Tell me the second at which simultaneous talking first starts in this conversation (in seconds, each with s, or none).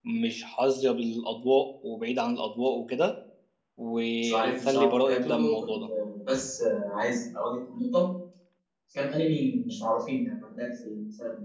4.2 s